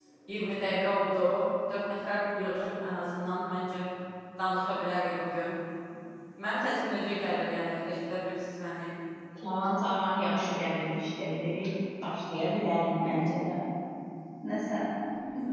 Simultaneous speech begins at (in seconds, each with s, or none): none